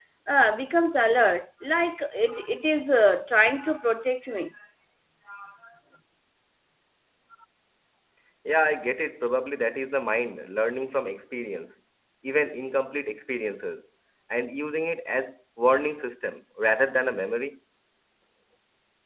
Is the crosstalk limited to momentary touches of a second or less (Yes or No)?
Yes